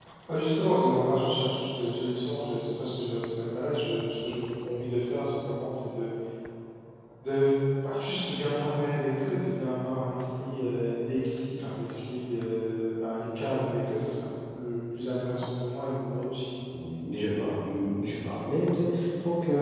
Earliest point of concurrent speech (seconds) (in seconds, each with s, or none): none